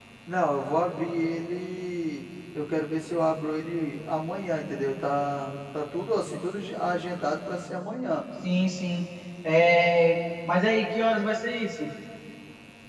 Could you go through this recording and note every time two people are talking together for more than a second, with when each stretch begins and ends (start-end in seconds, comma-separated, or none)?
none